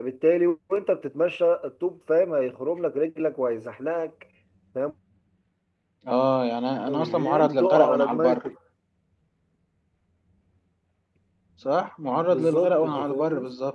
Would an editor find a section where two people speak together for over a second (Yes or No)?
Yes